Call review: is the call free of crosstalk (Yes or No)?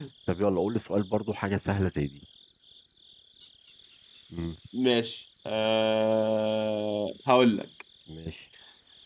Yes